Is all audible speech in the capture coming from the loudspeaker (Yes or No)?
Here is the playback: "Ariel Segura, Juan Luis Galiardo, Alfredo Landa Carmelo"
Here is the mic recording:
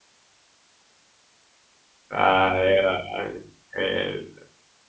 No